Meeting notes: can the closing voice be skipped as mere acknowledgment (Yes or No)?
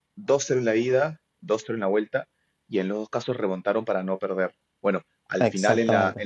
Yes